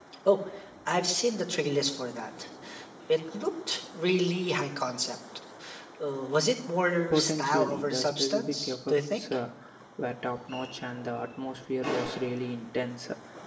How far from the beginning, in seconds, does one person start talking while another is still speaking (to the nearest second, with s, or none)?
7 s